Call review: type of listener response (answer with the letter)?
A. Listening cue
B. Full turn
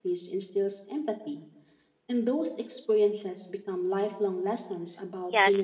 B